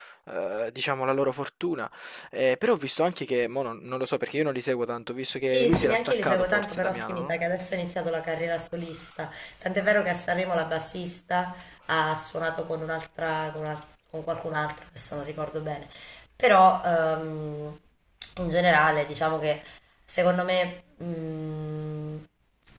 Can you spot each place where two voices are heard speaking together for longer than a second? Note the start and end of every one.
5.5-7.3

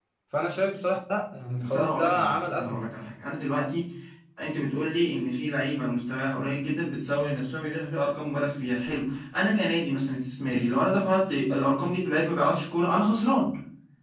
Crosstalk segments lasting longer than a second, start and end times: 1.6-2.8

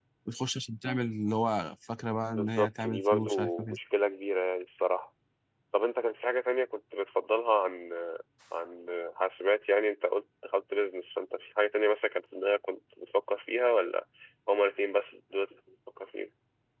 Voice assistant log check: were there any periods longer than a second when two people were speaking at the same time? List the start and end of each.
2.3-3.7

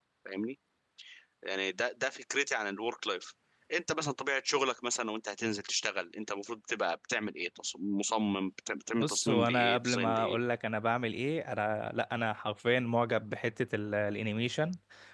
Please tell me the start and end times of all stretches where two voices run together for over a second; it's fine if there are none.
9.0-10.4

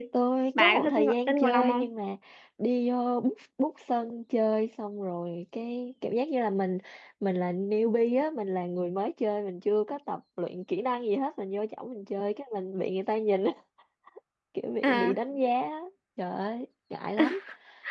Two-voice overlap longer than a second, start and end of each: 0.6-1.9

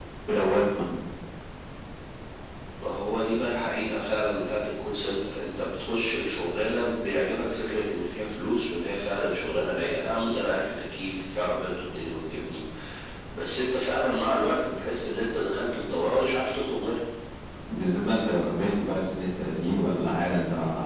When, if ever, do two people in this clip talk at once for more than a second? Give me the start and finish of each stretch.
none

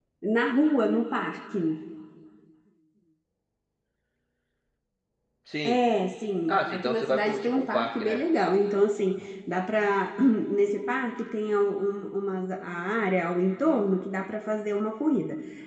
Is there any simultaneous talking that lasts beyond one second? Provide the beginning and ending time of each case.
6.5-8.2

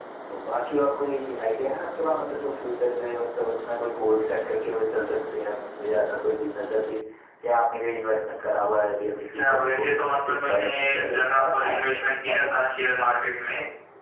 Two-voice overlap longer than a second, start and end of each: 9.3-12.6

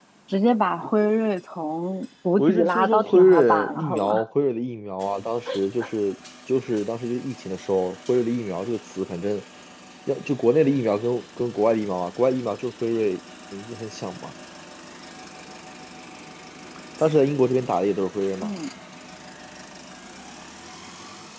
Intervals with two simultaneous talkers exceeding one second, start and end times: 2.4-4.2

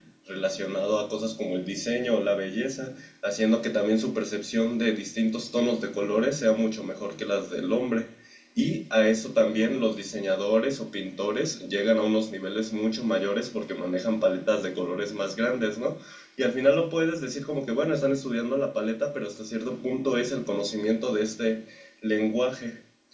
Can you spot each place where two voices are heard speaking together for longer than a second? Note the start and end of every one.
none

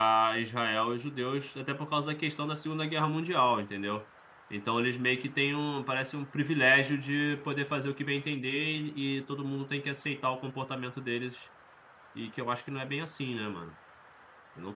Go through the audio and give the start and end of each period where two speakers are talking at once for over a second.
none

